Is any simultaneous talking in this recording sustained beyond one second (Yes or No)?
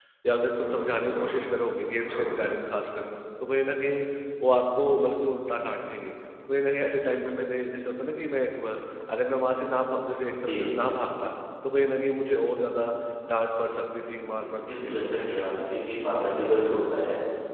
Yes